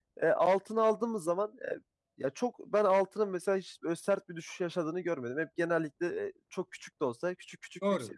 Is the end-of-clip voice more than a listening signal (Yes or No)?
Yes